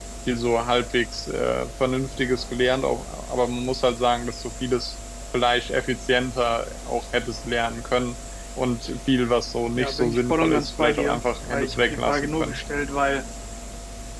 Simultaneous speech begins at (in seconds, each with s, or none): 9.8 s